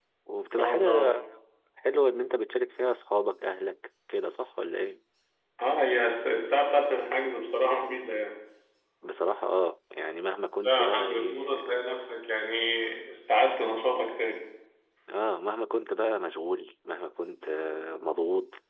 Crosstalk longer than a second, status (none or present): present